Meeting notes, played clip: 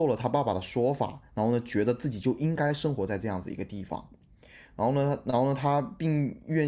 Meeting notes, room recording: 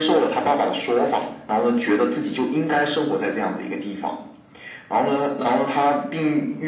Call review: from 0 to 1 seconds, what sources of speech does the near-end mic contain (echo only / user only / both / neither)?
echo only